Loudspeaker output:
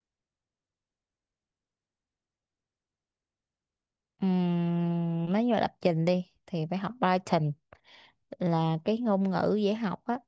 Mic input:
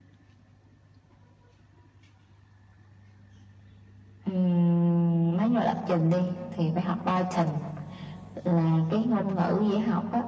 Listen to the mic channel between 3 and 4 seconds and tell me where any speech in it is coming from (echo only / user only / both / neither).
neither